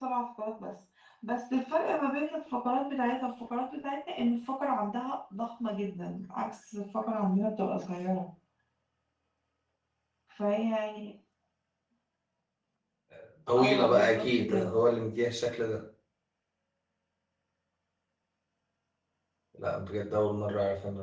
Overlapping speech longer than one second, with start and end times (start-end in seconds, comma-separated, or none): 13.6-14.8